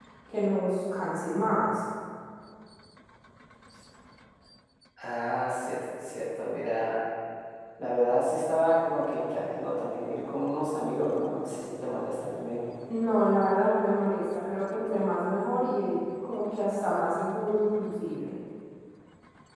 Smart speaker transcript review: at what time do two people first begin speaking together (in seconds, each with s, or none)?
none